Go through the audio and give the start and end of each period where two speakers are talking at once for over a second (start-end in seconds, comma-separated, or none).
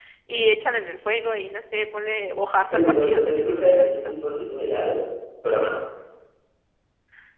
2.7-4.1